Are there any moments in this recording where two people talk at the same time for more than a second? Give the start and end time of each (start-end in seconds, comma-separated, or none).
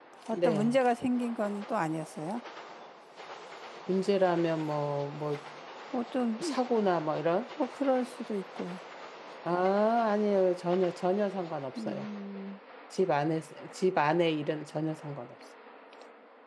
none